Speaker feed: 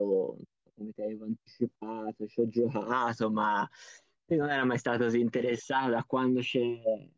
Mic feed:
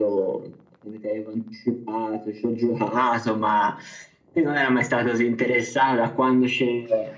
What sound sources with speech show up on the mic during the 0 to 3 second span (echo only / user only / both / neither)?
echo only